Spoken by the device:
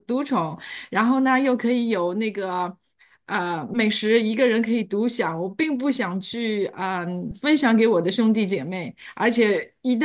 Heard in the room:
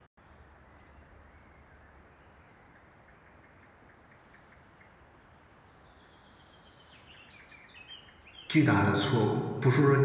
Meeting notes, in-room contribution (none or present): present